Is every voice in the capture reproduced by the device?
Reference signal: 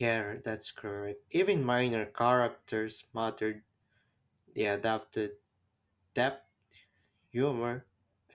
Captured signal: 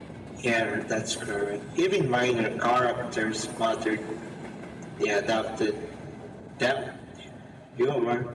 Yes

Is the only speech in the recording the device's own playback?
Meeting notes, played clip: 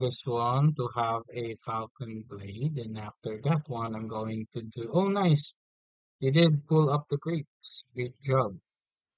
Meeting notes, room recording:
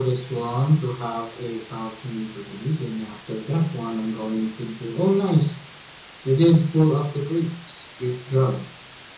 Yes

